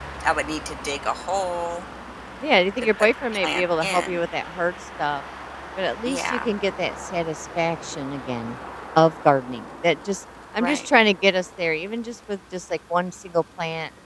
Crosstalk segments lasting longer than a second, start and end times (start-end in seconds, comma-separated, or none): 3.0-4.2